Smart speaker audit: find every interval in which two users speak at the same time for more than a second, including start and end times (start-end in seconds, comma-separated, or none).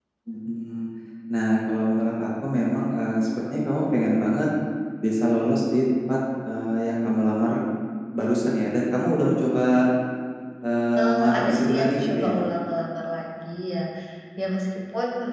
11.0-12.4